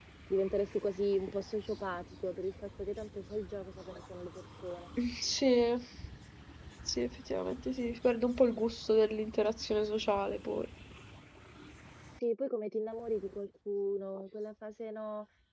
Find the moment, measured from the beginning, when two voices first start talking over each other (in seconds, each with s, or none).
none